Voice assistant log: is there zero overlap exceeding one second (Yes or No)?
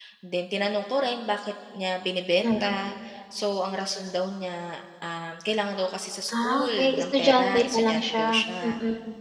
No